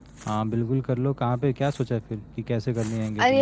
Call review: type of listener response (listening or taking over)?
taking over